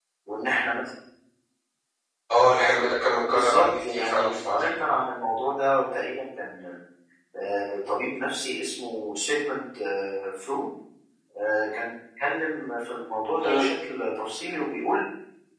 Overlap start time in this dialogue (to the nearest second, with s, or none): 3 s